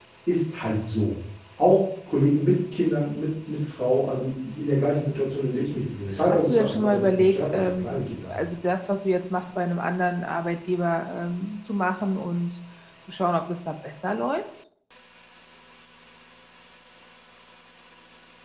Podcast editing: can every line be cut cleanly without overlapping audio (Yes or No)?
No